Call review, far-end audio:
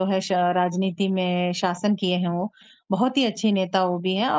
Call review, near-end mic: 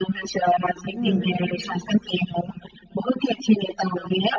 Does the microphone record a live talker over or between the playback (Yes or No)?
Yes